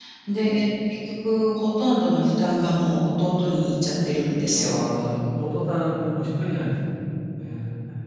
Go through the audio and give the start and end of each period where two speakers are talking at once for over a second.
none

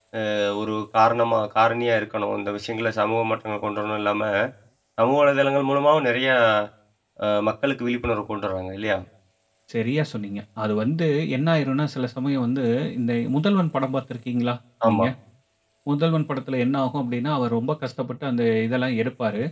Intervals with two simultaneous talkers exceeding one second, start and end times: none

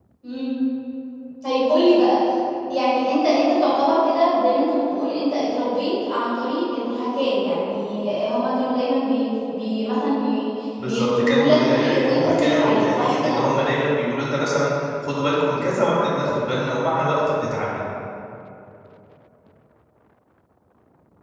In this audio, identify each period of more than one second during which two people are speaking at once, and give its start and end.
10.8-13.3

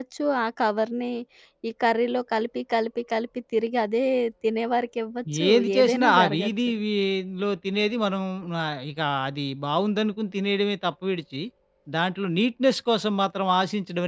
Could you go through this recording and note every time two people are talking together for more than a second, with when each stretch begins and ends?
5.5-6.7

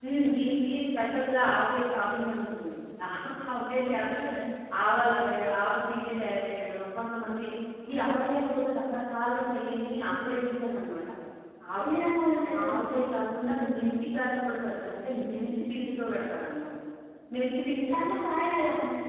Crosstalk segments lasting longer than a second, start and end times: none

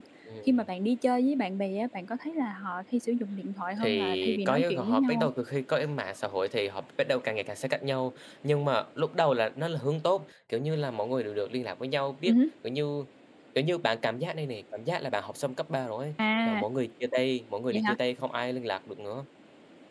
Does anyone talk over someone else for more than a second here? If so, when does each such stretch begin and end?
3.8-5.3

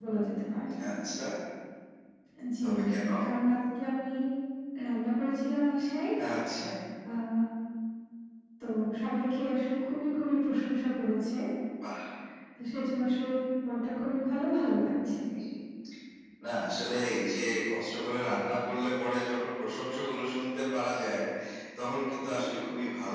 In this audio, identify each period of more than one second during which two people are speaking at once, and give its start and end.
none

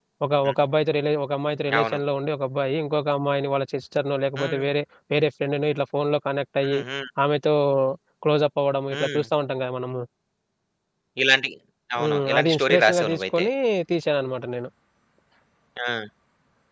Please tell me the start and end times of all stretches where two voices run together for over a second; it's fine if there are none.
12.0-13.5

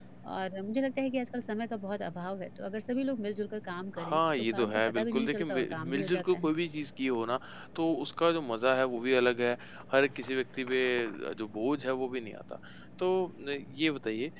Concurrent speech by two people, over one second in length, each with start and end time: 4.0-6.5

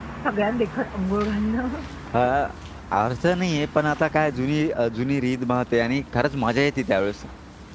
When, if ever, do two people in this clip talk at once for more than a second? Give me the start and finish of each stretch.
none

